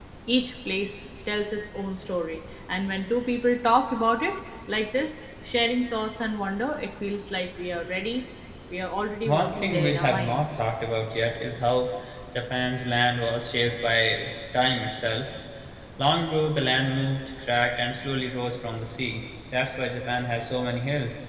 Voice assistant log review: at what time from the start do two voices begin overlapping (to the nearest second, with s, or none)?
9 s